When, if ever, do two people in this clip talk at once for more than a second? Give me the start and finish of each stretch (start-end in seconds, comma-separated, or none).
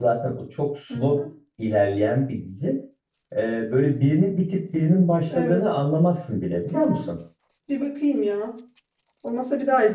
none